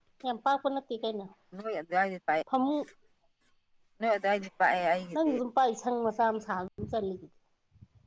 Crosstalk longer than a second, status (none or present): none